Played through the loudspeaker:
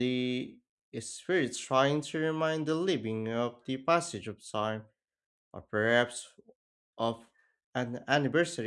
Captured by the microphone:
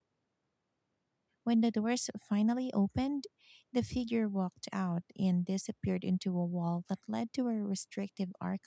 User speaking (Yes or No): Yes